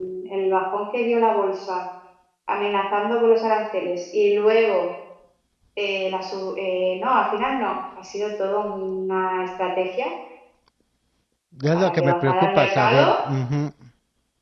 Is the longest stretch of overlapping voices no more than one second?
No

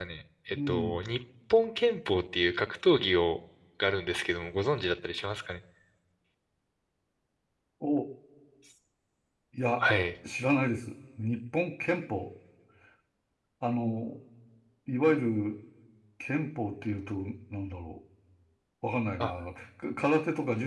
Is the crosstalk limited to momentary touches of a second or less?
Yes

